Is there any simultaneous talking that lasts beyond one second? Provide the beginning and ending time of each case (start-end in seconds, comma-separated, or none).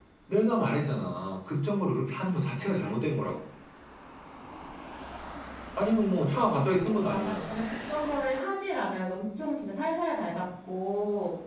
6.4-7.6